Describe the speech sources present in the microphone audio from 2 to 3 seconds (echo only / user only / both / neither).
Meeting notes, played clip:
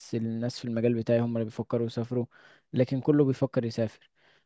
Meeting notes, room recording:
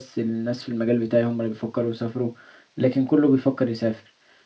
echo only